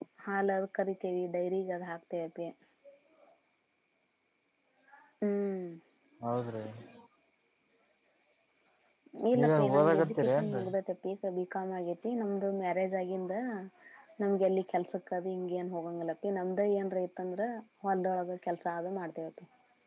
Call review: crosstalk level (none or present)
present